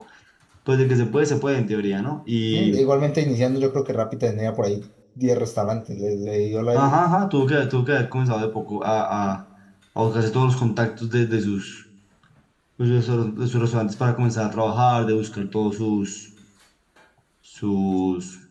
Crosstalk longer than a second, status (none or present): none